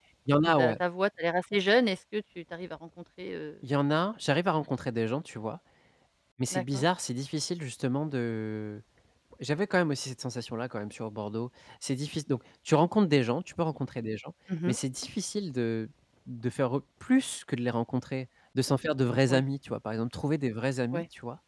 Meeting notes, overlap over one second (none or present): none